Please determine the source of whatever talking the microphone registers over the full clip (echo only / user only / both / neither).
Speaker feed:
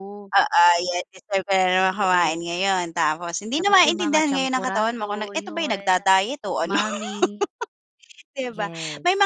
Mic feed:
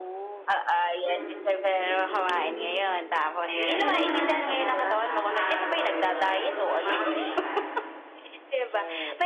both